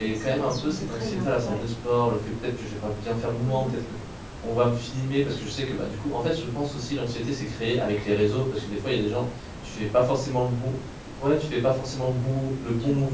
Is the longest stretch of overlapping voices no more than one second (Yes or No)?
No